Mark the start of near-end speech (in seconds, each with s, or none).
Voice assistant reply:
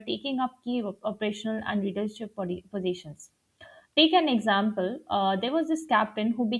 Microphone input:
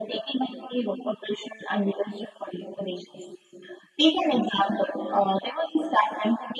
none